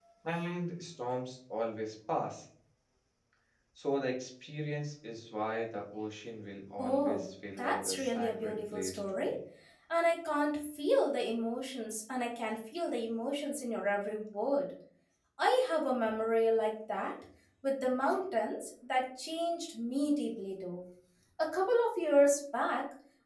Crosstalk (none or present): present